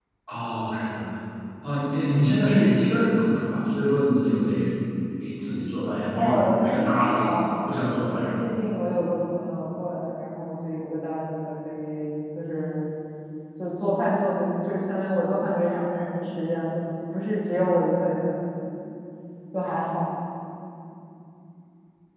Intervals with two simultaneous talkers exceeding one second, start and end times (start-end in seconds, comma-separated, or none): 6.1-7.4